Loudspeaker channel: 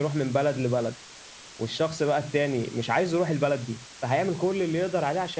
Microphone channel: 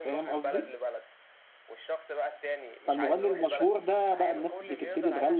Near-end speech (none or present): present